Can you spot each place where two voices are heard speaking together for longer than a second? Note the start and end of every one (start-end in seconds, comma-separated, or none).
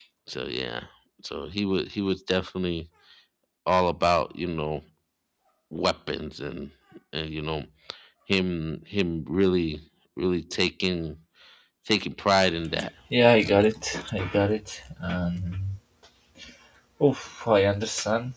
none